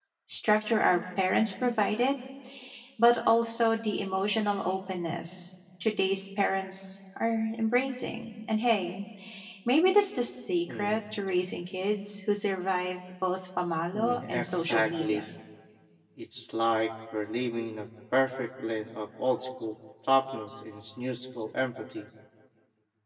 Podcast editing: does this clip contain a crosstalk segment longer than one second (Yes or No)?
Yes